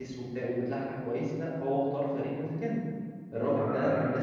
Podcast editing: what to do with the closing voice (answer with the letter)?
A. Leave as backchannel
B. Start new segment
A